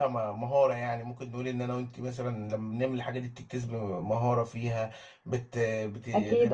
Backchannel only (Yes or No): Yes